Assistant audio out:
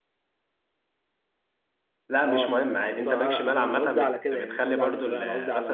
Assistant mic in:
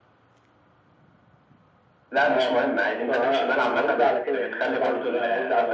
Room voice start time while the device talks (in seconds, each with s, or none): none